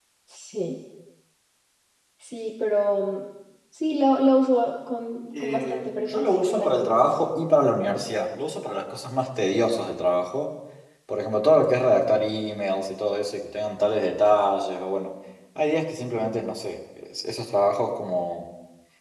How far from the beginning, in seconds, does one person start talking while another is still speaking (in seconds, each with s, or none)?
5.3 s